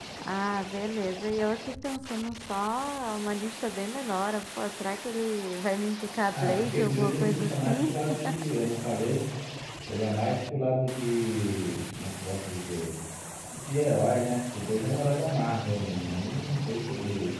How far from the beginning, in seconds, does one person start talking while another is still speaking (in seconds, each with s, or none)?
6.3 s